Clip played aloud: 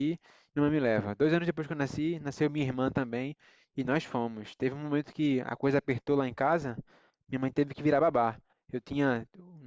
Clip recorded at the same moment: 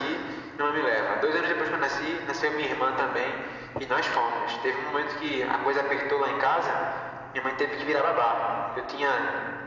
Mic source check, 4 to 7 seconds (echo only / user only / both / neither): echo only